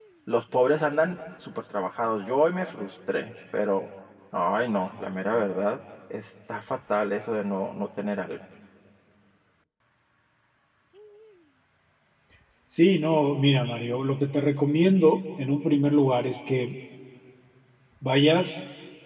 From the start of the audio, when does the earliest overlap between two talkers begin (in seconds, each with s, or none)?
none